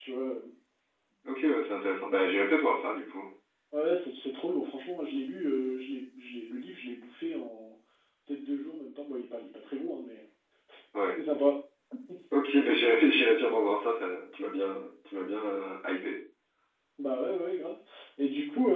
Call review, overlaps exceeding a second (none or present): none